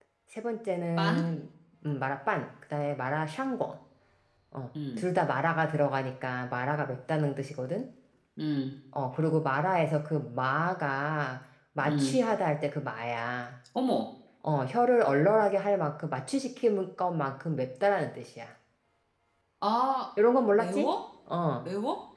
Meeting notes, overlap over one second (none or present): none